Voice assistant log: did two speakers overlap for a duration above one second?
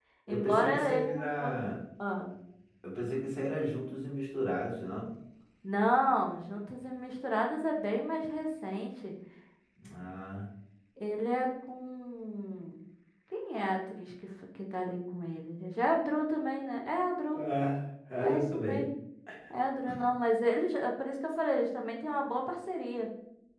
Yes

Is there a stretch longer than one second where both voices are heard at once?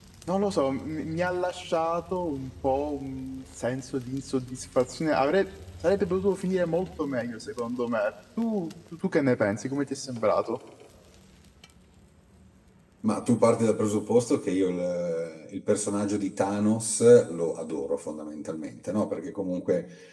No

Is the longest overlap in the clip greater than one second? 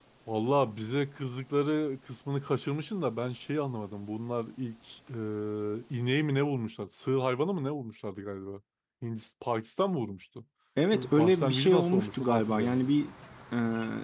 Yes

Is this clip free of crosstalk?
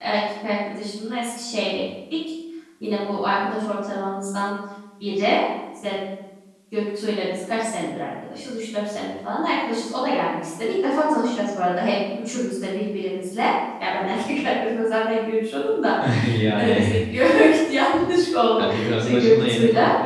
No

